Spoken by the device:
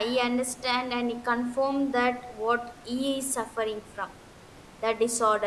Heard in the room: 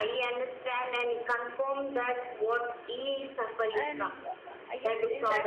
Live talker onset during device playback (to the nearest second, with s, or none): 4 s